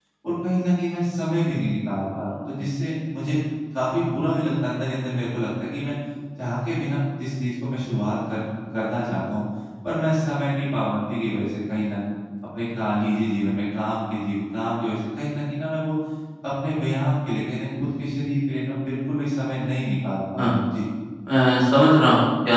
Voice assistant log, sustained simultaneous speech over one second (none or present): none